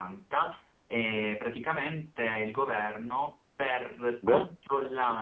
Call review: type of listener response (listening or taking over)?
listening